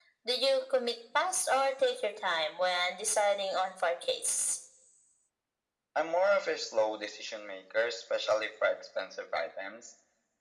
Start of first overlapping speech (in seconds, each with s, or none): none